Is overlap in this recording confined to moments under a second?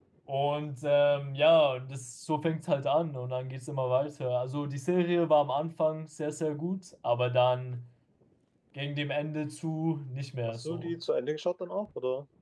Yes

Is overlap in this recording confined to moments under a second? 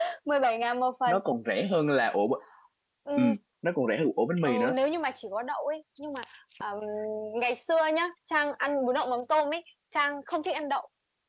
Yes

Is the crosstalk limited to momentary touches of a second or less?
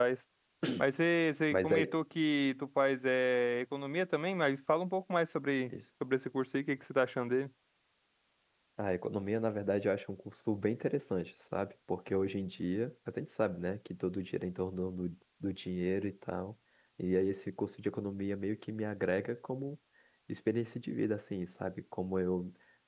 Yes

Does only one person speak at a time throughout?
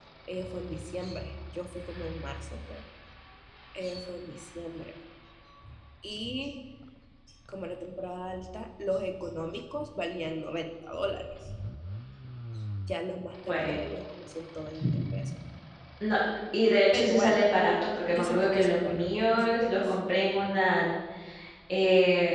No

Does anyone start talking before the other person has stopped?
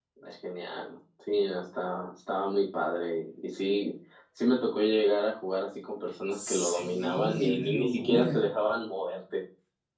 Yes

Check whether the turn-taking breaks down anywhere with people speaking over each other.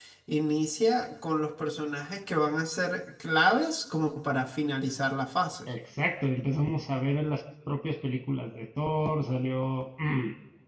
No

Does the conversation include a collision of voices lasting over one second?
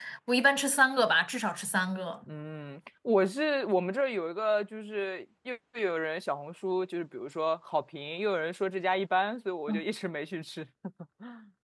No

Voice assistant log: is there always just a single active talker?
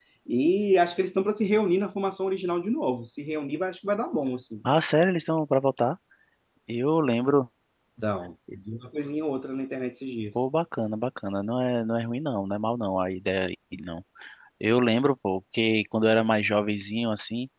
Yes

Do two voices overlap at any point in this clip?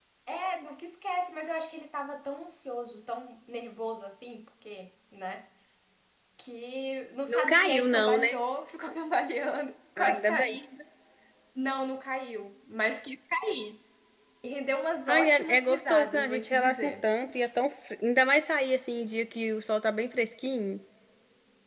Yes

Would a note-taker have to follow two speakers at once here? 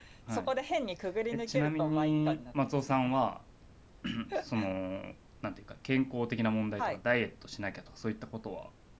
Yes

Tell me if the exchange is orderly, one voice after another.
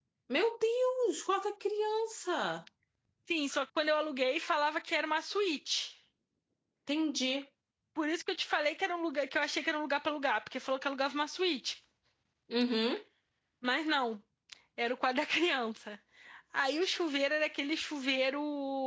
Yes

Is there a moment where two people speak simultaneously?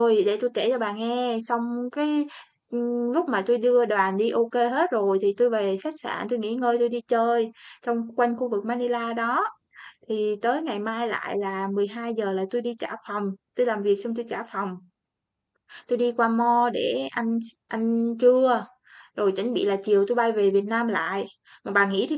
No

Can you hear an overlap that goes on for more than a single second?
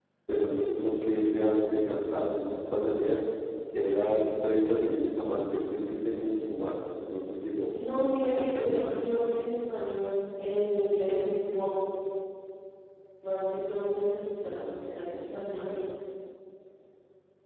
Yes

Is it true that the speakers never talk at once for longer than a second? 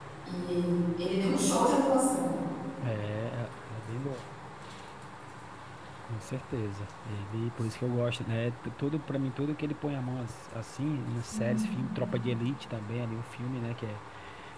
Yes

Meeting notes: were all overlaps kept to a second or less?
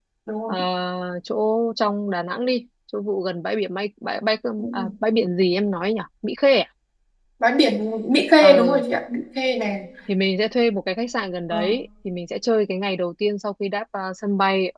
Yes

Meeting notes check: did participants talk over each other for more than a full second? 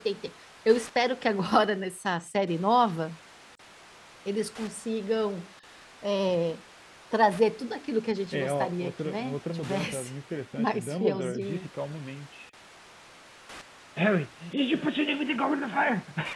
Yes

